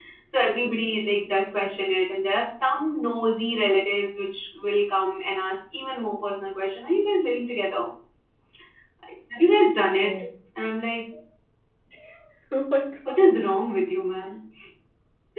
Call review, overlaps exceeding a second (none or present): none